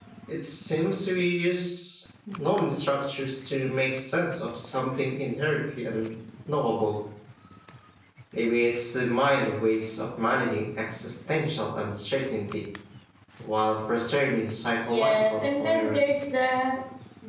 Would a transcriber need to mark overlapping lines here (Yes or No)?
Yes